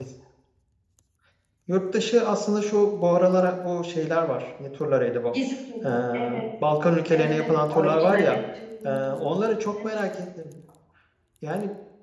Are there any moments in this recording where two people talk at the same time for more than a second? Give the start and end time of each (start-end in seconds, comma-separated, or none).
7.1-8.4